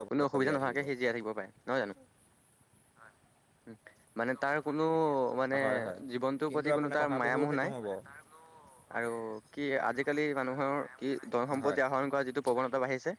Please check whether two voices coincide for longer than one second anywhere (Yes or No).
Yes